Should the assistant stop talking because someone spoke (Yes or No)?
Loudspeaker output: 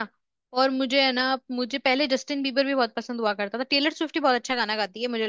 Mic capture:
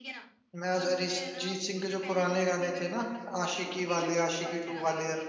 Yes